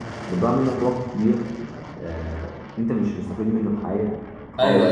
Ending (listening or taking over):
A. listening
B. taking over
B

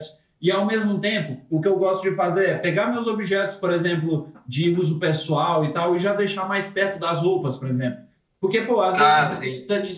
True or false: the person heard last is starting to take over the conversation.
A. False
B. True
A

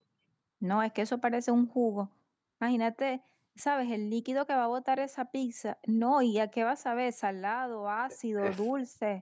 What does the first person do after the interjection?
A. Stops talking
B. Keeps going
A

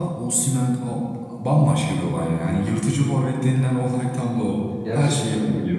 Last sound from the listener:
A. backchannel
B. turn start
B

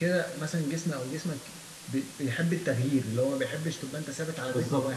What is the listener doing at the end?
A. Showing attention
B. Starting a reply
B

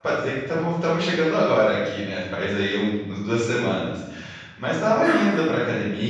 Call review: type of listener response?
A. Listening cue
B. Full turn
A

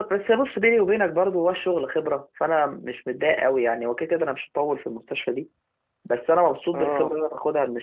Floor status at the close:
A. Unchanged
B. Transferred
A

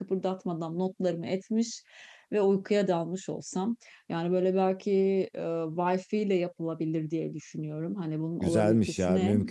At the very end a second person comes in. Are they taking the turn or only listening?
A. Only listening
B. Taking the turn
B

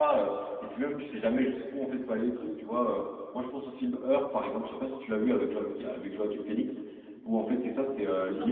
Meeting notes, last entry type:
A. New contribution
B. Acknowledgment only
B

